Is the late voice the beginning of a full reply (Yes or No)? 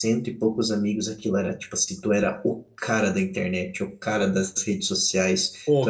No